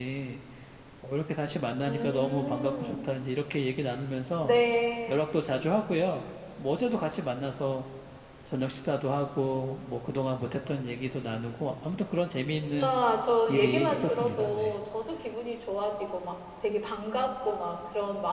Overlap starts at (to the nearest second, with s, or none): 2 s